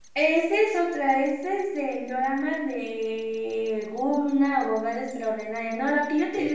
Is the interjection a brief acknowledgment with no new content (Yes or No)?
Yes